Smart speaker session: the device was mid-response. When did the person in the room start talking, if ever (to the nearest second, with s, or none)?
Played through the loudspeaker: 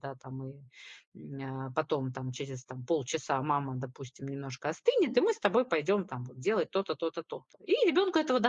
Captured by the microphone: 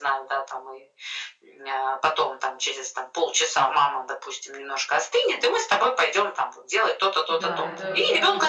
7 s